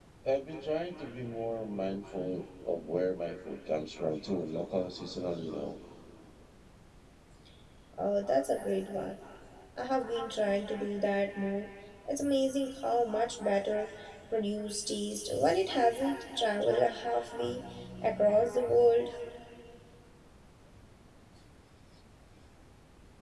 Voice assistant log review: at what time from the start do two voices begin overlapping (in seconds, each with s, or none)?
none